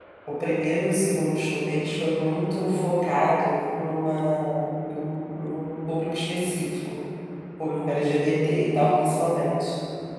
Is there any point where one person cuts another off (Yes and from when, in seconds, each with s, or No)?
No